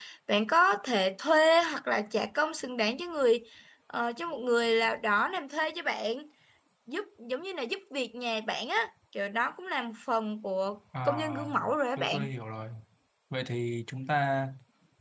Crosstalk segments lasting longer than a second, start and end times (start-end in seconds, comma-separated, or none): 11.0-12.3